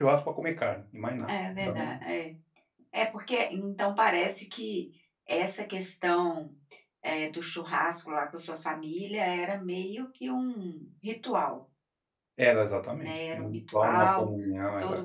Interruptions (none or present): present